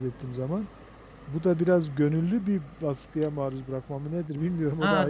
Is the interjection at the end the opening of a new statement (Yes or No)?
Yes